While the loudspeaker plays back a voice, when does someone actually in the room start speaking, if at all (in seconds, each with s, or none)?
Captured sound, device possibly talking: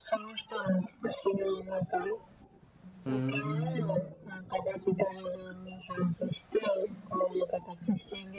3.0 s